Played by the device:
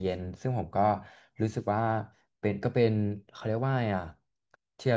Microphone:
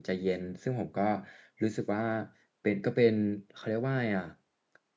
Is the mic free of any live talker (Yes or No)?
Yes